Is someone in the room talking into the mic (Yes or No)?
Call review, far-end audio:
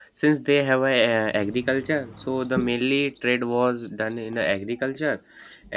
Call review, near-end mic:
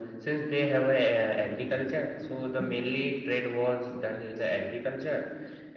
No